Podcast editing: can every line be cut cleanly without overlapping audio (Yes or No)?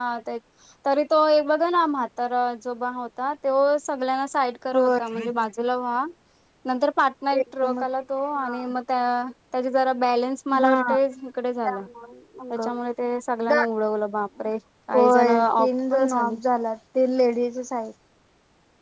No